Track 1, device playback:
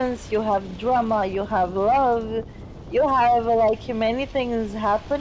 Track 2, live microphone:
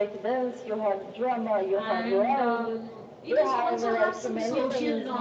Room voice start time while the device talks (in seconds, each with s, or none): 1.7 s